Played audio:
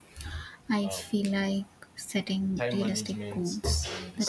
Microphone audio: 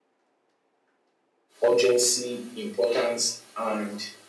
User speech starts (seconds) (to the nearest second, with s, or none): 2 s